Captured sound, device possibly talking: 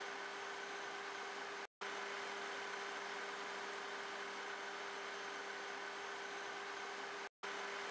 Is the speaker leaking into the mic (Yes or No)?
No